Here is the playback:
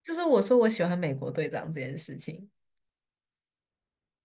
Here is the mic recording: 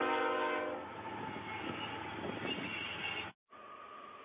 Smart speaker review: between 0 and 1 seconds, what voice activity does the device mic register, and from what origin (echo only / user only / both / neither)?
neither